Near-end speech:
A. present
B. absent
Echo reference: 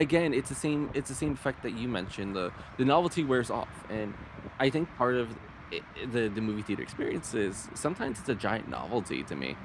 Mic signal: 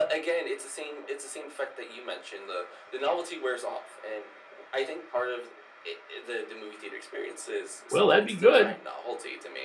A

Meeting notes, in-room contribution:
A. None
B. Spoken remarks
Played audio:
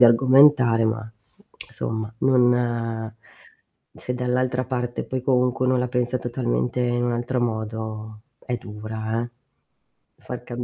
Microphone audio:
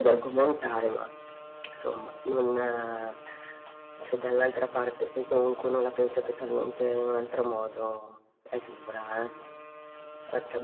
A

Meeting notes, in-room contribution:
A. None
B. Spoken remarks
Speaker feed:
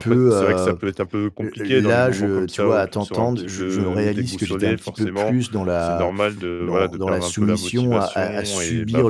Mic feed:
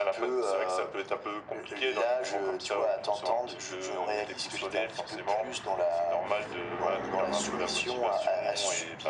A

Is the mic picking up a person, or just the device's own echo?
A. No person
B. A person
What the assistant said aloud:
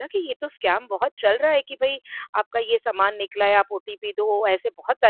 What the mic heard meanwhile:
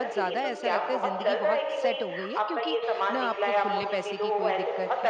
B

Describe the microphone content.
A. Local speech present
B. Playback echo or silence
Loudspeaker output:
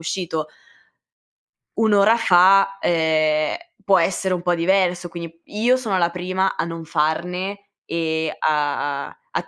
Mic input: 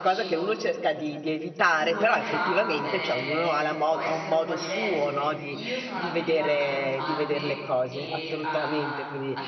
A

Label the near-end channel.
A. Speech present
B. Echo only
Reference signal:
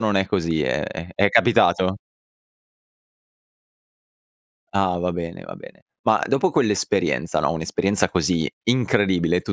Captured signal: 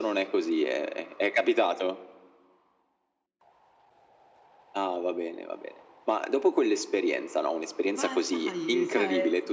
A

